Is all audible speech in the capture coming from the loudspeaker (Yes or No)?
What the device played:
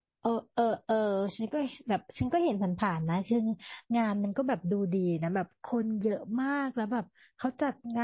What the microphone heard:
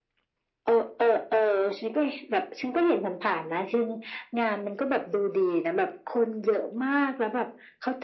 Yes